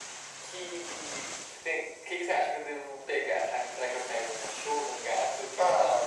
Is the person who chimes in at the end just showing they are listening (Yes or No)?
No